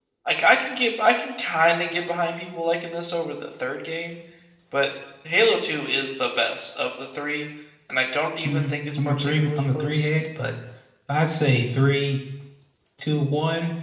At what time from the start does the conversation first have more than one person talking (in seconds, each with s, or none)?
8.4 s